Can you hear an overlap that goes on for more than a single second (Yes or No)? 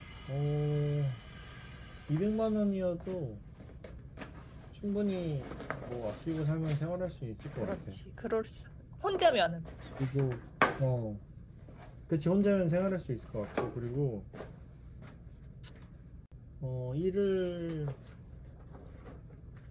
No